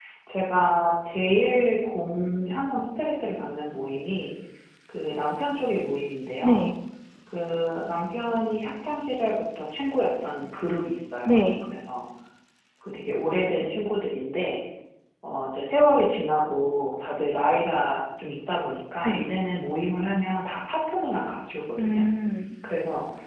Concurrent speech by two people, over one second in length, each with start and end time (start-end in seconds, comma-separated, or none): none